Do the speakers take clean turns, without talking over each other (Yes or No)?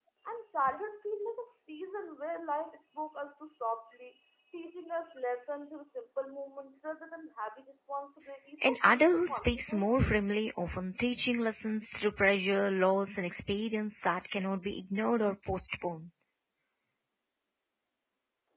No